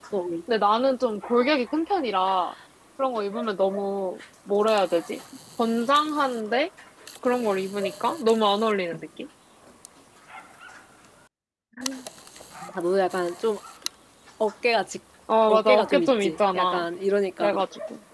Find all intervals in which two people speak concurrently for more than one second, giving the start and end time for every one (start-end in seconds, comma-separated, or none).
15.5-16.8